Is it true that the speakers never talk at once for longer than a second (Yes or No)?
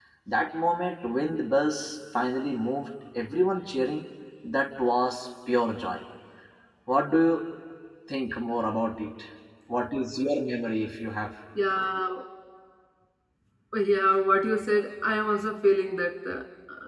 Yes